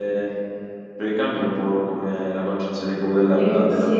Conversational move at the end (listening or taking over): listening